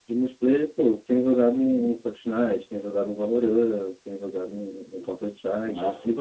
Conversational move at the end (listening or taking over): taking over